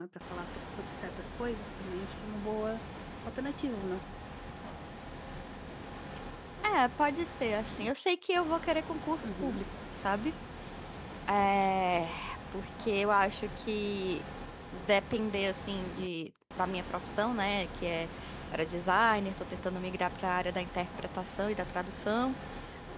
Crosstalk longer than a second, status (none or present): none